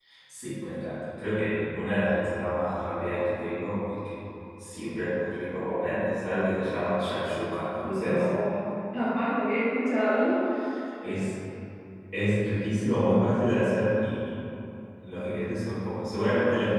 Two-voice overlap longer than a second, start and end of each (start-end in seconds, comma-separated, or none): none